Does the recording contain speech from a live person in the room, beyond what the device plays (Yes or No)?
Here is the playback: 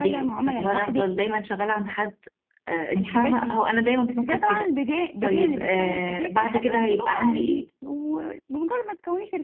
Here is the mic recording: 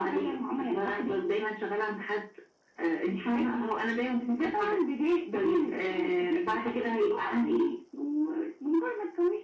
No